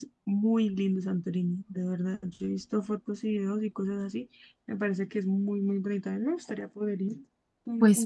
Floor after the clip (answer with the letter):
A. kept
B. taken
B